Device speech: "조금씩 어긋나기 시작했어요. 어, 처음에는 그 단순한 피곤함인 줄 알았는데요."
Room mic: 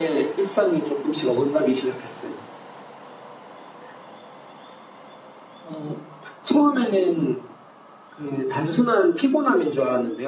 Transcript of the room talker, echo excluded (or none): none